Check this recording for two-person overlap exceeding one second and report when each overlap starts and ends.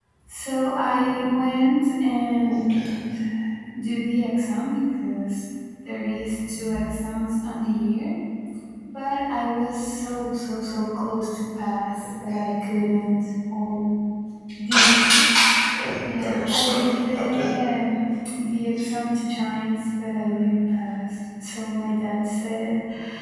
16.1-17.4

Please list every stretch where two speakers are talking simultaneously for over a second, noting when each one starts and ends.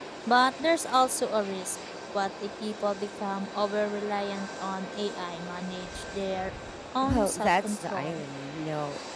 7.0-8.2

